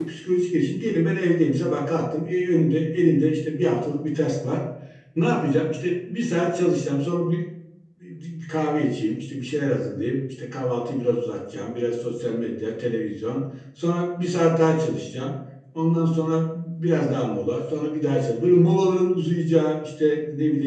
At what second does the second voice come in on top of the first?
none

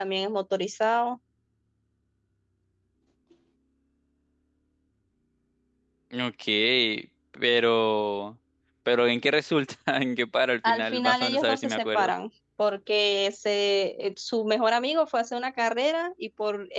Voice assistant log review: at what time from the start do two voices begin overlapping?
10.6 s

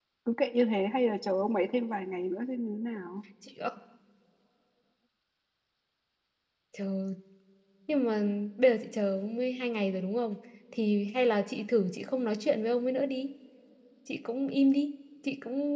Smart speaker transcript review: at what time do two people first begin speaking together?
none

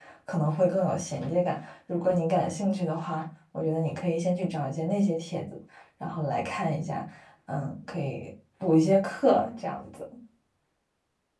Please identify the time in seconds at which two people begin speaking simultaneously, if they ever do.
none

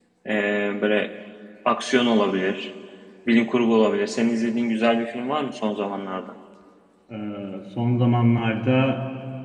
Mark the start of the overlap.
none

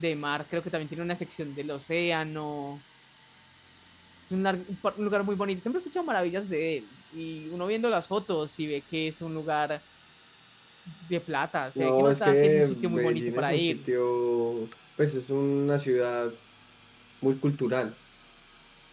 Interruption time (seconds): 11.8 s

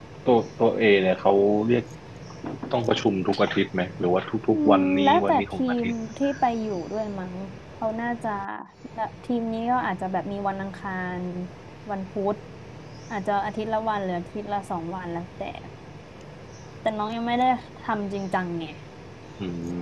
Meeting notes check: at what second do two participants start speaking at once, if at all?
4.5 s

